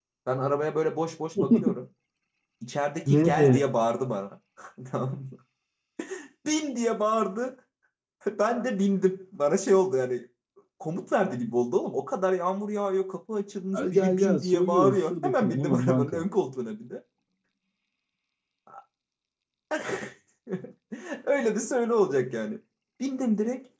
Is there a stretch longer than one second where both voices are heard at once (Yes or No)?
Yes